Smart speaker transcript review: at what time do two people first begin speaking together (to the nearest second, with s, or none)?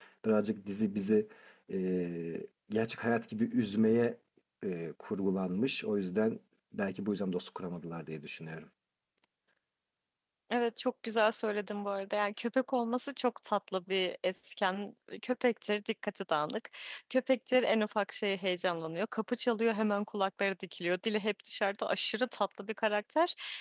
none